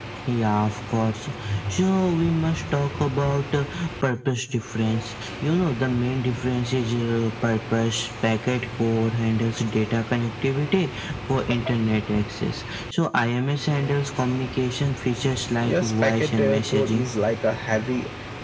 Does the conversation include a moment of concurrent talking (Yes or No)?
Yes